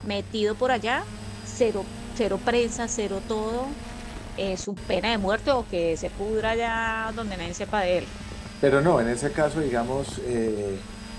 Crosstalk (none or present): none